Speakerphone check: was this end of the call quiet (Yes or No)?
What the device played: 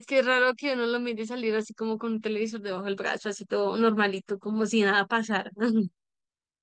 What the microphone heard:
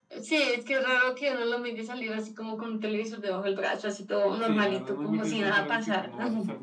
No